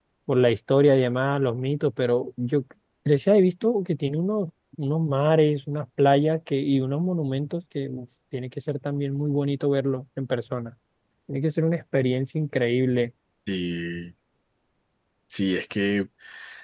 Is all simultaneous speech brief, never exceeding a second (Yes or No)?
Yes